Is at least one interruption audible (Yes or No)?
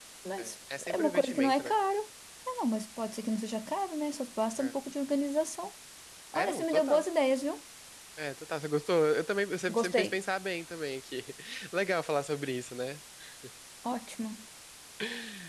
Yes